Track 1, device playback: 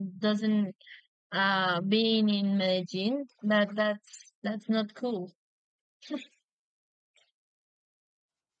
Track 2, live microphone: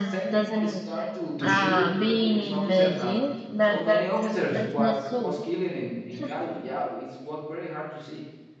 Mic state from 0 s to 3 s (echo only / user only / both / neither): both